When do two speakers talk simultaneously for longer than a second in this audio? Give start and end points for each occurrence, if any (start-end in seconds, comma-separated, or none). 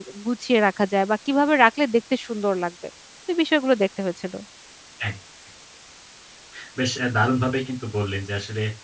none